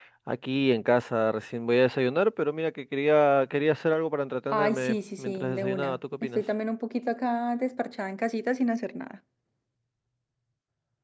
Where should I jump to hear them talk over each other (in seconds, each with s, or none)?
4.5 s